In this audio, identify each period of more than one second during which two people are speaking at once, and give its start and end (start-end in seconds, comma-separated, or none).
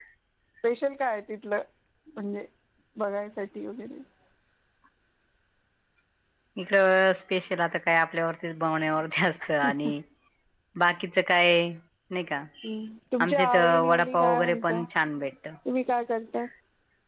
13.2-14.8